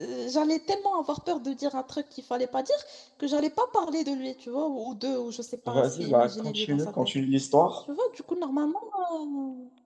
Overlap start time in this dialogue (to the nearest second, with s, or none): 6 s